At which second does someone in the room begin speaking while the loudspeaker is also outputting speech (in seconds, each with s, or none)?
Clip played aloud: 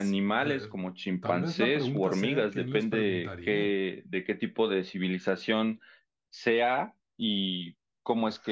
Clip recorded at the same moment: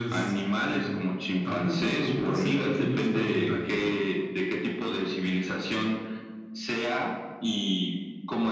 none